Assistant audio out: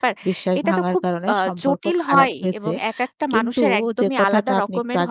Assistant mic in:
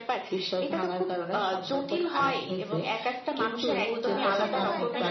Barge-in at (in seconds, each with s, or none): 4.1 s